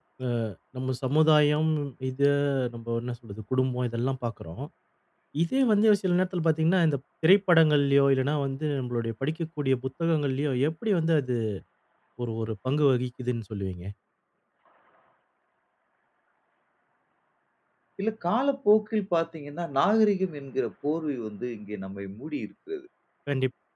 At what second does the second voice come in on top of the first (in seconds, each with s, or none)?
none